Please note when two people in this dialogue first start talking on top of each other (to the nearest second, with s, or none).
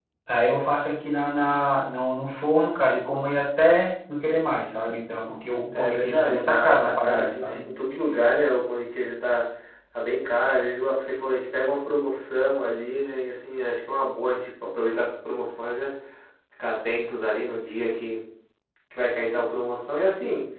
6 s